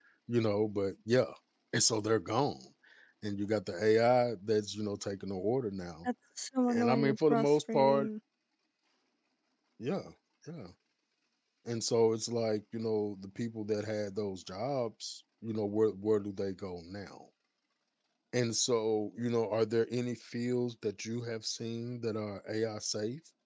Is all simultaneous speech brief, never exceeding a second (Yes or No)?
No